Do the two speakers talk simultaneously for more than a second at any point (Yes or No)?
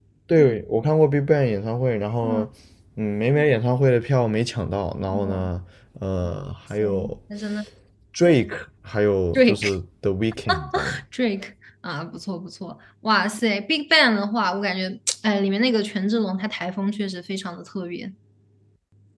No